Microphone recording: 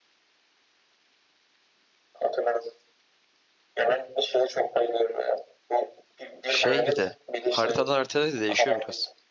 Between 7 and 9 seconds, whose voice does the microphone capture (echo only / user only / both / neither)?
both